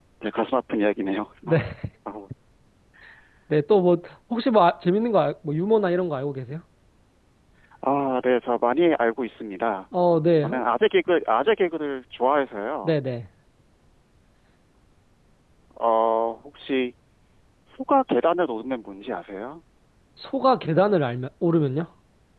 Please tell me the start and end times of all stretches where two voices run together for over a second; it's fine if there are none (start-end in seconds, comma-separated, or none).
none